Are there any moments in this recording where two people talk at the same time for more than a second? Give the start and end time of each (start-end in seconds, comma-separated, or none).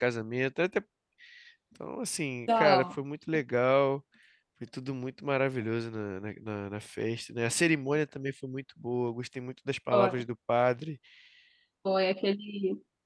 none